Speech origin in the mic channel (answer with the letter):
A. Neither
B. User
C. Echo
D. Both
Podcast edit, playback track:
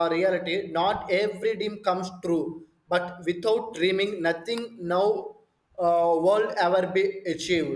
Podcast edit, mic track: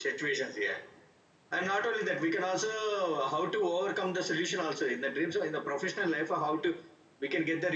B